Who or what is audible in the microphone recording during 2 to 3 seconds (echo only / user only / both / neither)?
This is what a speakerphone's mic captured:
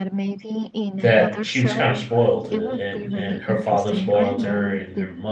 both